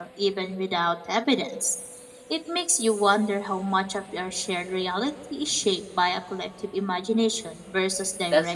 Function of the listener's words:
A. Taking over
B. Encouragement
A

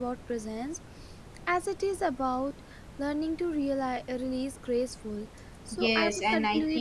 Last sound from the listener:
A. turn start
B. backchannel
A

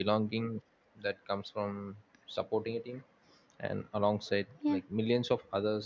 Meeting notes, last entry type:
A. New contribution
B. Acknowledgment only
B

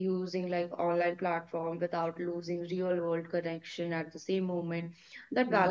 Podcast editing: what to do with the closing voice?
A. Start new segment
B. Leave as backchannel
B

